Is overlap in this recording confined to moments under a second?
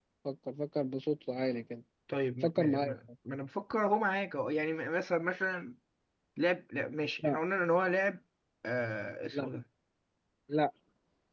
Yes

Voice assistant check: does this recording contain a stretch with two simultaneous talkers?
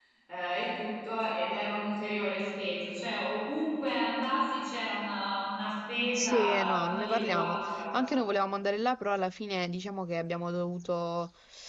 Yes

